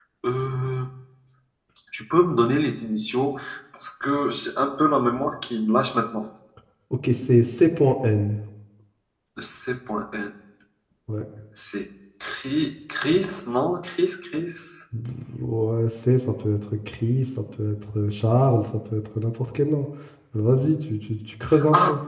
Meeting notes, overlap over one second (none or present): none